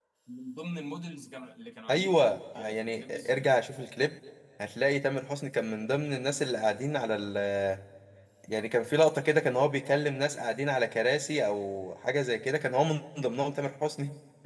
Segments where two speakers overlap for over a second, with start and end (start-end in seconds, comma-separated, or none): 1.9-3.5